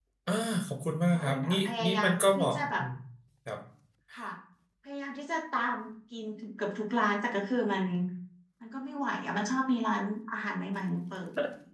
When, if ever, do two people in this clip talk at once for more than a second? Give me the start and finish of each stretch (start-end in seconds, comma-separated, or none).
1.1-2.8